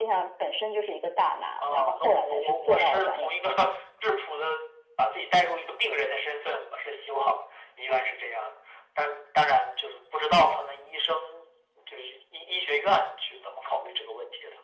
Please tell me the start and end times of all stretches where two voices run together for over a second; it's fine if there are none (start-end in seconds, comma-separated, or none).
1.6-3.5